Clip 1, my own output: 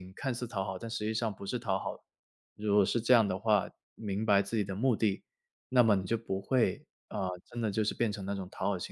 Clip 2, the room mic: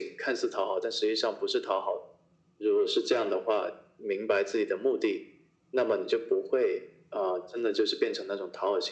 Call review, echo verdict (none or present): present